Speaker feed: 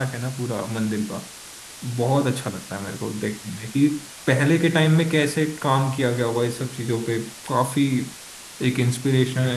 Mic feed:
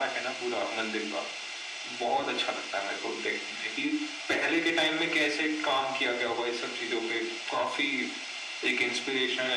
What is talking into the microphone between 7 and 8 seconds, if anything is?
echo only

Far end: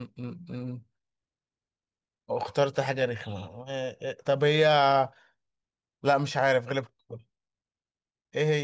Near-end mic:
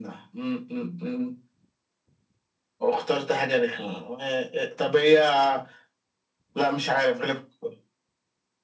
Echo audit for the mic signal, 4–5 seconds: echo only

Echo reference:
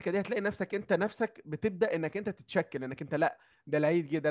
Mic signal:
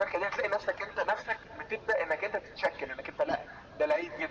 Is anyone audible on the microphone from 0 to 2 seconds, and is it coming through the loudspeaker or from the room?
echo only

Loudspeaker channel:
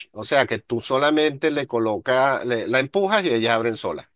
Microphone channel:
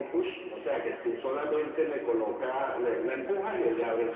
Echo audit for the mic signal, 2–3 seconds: echo only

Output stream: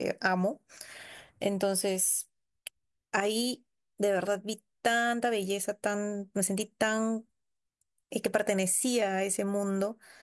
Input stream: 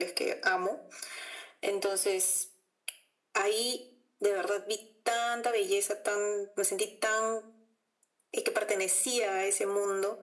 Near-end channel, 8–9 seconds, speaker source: echo only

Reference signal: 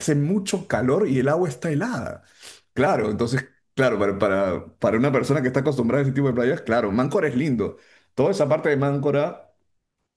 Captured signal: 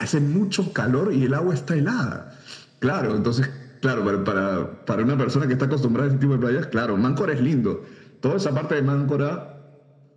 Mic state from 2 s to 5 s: echo only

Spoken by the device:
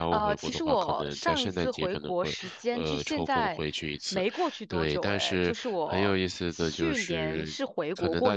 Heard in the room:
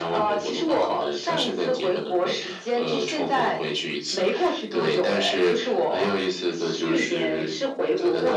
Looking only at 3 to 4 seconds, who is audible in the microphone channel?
echo only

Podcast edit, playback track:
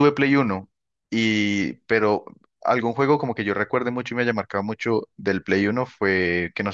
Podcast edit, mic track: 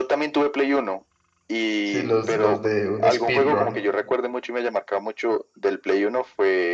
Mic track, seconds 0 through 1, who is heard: echo only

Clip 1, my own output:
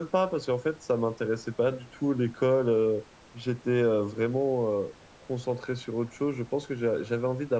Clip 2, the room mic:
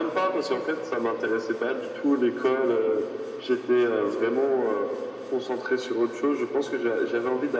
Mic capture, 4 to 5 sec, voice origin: echo only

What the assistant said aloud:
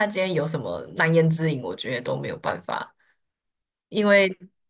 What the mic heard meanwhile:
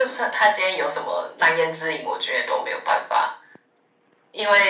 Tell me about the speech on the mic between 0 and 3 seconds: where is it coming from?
echo only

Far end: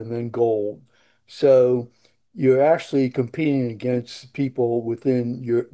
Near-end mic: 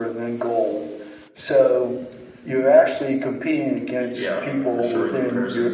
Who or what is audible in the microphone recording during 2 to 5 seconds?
both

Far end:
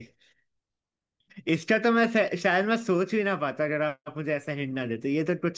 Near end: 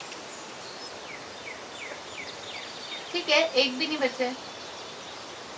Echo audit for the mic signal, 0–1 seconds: neither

